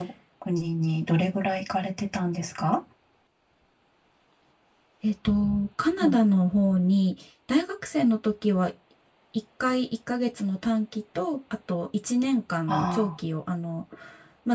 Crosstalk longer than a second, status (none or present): none